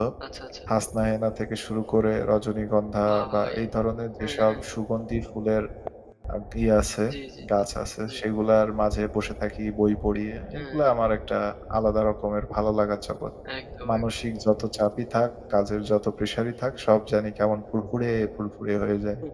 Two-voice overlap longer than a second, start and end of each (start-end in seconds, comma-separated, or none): none